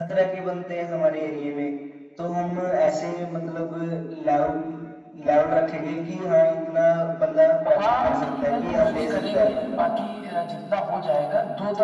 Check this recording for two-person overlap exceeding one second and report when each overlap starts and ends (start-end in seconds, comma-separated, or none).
7.7-9.8